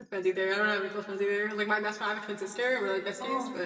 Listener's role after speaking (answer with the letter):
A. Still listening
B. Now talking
B